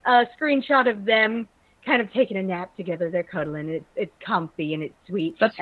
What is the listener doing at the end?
listening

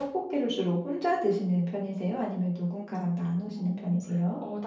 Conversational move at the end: taking over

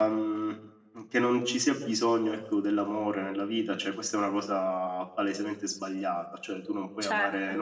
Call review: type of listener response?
listening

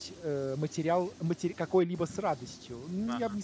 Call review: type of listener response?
listening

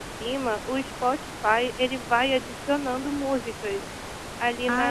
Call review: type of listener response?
taking over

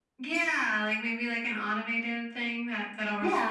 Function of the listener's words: taking over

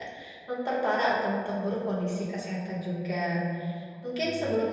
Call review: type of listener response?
listening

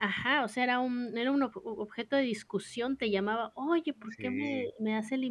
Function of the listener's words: listening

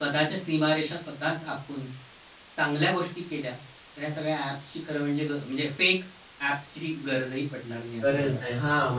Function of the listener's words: taking over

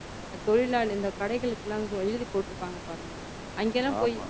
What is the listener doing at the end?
listening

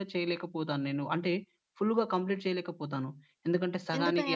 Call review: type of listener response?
listening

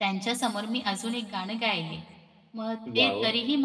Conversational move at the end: listening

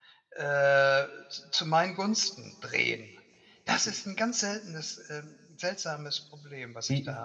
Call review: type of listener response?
taking over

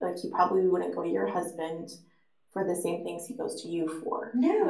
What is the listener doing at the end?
taking over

